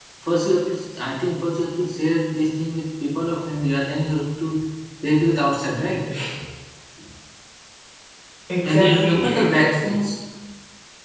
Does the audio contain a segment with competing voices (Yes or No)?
Yes